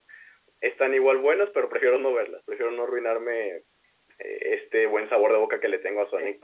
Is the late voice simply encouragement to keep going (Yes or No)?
Yes